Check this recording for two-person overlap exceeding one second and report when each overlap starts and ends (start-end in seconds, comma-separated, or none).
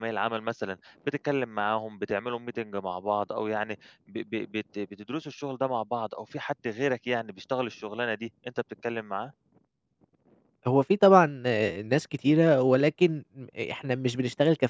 none